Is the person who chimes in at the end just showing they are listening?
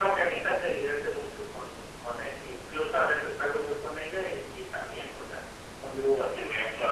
No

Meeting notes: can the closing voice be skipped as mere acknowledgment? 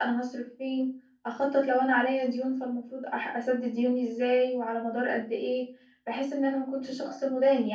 Yes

